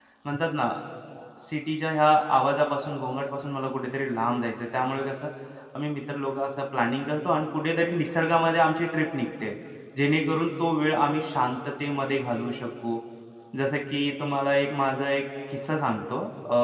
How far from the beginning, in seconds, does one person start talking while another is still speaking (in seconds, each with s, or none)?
none